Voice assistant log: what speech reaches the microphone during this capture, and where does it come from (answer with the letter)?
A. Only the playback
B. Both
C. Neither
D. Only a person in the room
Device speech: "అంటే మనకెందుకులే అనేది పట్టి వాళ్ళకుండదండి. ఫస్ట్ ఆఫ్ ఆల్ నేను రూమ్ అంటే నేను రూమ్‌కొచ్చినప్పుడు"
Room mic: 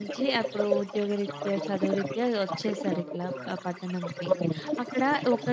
B